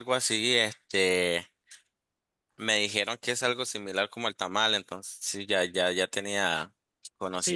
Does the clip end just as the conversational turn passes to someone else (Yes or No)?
Yes